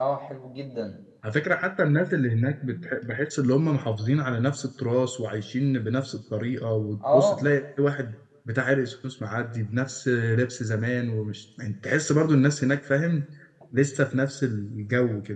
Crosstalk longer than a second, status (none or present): none